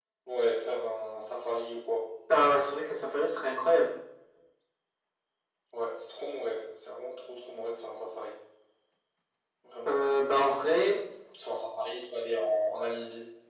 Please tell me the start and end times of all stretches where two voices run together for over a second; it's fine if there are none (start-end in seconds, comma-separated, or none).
none